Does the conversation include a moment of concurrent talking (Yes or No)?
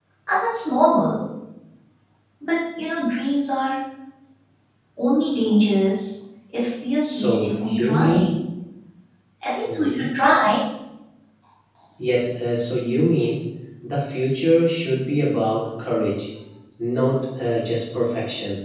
Yes